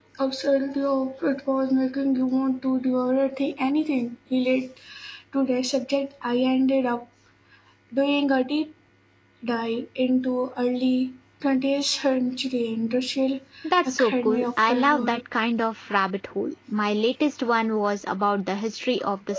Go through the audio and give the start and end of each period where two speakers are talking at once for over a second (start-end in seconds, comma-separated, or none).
13.8-15.2